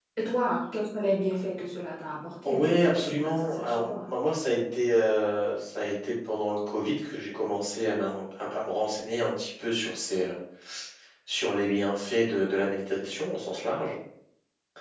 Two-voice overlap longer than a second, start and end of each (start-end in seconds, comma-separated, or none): 2.4-3.9